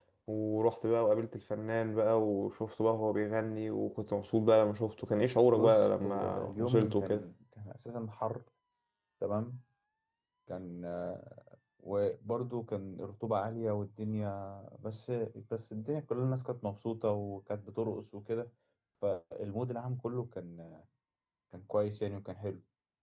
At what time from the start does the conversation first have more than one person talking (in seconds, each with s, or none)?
5.5 s